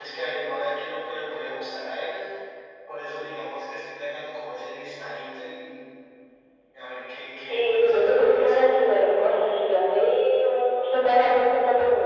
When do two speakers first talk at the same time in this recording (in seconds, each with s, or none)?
7.4 s